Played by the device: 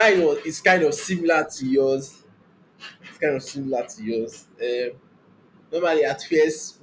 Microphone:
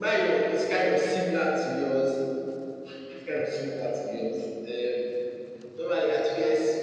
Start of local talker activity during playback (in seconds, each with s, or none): none